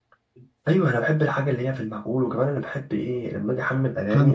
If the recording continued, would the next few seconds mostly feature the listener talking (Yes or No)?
Yes